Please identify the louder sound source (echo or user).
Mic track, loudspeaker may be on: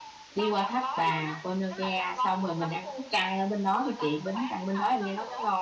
user